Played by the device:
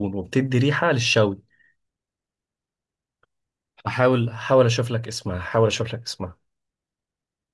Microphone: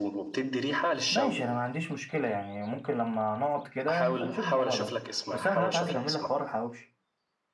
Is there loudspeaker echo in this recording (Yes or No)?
Yes